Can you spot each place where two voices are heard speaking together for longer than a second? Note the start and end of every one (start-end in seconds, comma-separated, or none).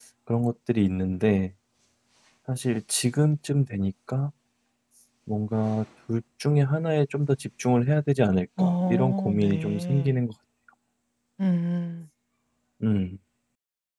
8.6-10.1